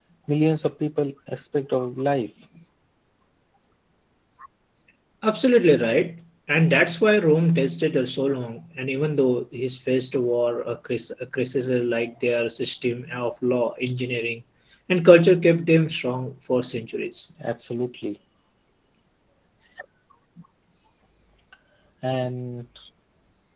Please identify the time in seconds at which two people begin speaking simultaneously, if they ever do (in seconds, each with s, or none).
none